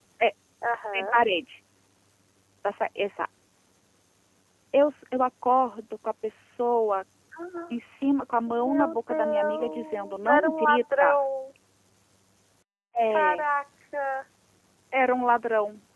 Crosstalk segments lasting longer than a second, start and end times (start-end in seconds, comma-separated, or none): 8.5-11.2